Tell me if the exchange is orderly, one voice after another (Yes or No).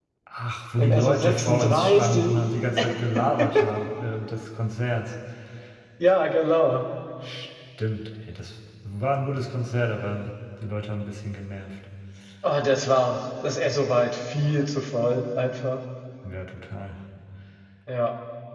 No